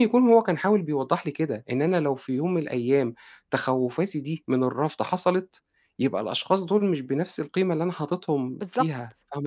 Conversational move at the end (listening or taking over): taking over